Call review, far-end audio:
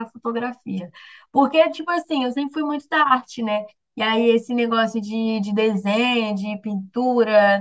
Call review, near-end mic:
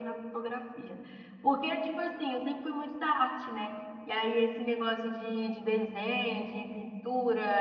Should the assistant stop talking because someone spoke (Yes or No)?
No